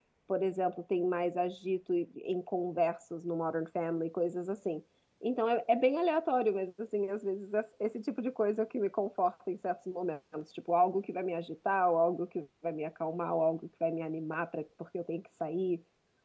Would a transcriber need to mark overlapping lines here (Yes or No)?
No